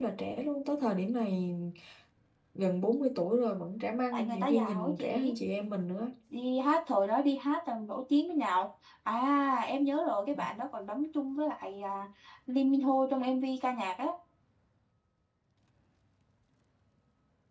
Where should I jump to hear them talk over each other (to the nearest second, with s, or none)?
4 s